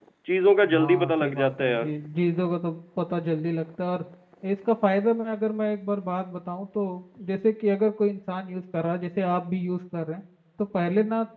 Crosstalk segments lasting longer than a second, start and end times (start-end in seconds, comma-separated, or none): 0.7-1.9